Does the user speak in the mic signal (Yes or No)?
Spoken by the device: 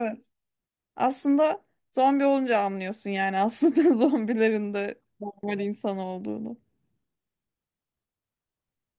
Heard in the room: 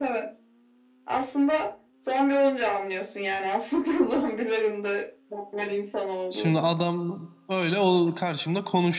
Yes